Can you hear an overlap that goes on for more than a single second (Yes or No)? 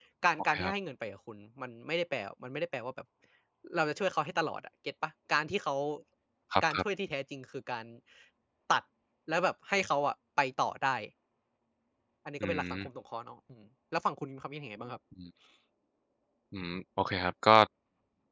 No